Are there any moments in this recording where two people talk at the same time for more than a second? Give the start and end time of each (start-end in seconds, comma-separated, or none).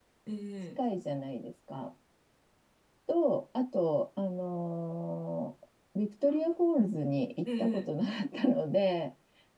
none